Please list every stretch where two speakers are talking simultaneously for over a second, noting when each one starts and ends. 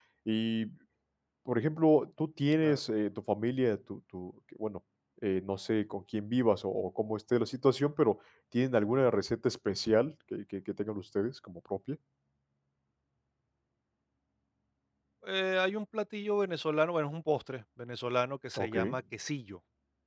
none

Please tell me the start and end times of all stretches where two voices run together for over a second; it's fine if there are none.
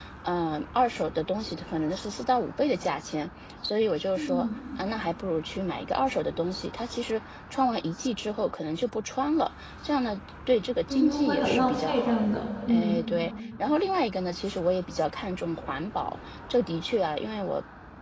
10.9-12.2

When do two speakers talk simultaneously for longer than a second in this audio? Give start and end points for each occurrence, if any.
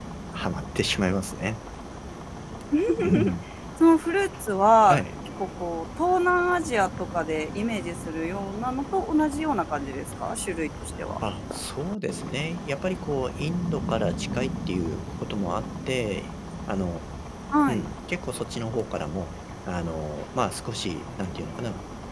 none

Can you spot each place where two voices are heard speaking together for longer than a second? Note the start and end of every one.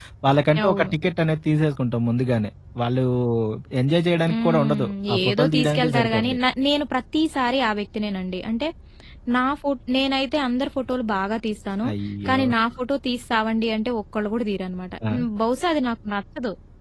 4.3-6.4

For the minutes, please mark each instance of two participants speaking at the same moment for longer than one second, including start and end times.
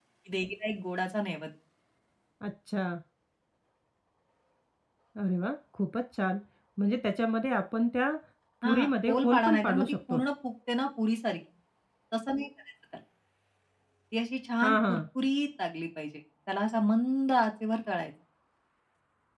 8.6-10.2

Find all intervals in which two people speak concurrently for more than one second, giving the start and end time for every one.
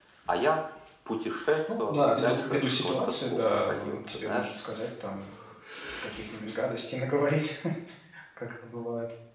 1.7-4.4

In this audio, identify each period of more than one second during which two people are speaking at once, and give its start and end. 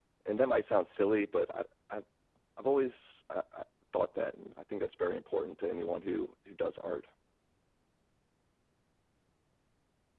none

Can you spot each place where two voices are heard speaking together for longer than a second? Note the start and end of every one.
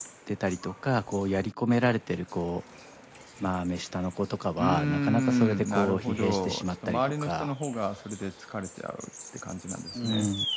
4.6-7.5

